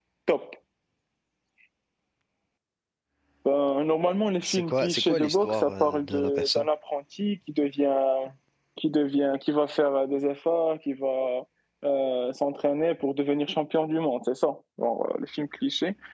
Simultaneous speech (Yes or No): Yes